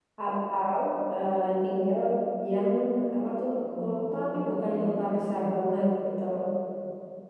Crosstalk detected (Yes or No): Yes